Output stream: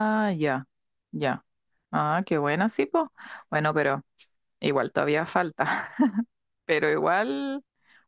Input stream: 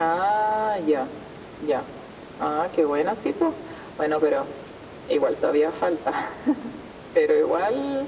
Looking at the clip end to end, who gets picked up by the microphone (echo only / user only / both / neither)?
echo only